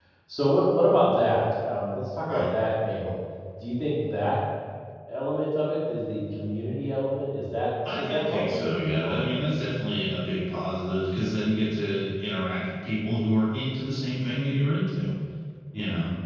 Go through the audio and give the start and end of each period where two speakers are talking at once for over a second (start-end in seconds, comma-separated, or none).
7.9-9.2